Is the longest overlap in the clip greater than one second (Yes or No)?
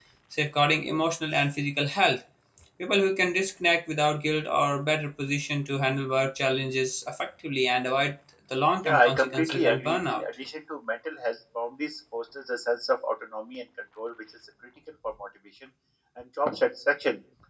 Yes